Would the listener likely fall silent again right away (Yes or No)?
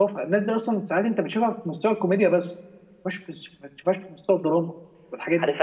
No